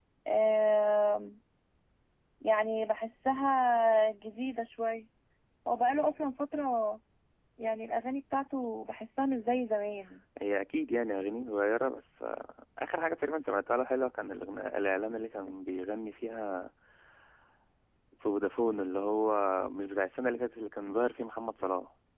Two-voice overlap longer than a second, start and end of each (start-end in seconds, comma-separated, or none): none